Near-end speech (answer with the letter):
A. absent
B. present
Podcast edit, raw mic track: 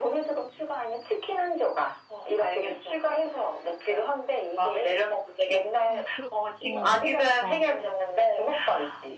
B